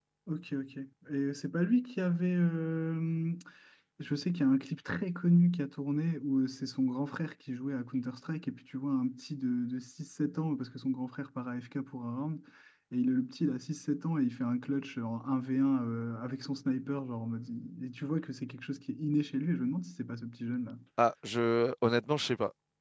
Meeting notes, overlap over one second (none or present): none